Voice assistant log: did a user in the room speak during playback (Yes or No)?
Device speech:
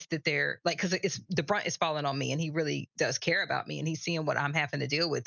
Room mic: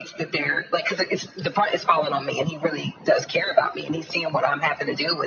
No